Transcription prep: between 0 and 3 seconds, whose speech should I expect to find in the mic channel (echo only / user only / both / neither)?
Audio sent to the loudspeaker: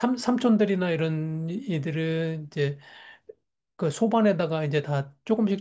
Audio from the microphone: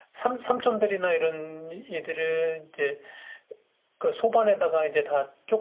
echo only